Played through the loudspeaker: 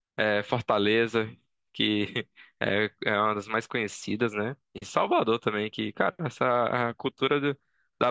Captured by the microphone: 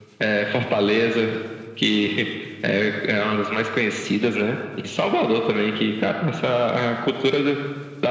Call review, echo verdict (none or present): present